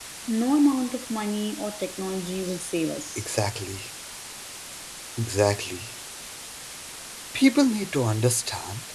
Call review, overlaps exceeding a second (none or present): none